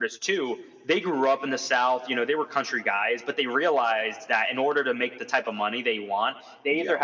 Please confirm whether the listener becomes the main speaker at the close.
No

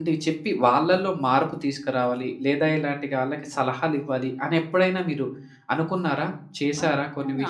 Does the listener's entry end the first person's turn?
Yes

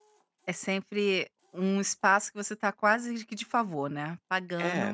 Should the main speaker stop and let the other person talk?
Yes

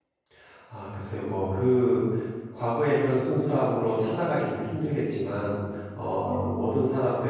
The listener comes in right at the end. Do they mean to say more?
No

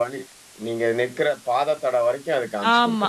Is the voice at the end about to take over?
Yes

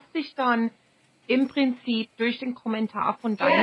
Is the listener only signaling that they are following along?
No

